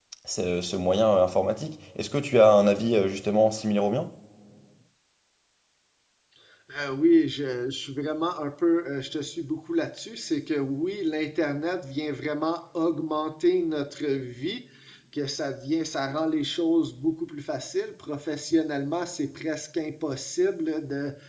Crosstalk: none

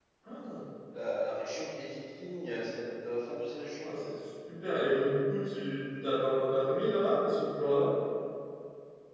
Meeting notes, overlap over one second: none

